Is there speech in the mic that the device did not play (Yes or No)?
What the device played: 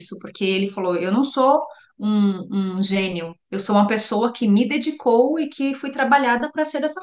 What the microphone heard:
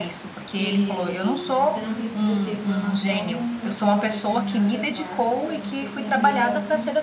Yes